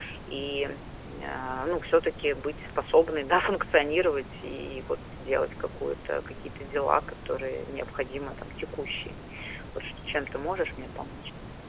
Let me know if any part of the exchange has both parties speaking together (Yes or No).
No